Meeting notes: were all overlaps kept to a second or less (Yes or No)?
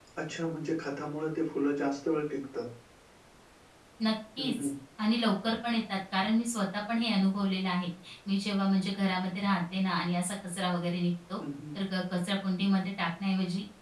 Yes